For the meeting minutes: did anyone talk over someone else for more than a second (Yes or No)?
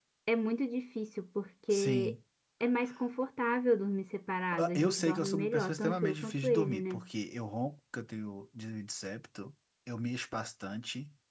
Yes